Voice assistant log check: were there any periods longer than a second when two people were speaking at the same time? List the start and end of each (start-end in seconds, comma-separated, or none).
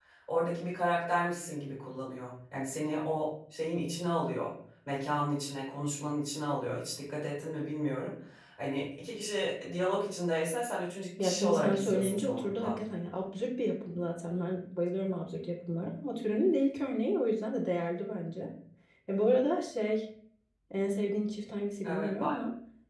11.2-12.8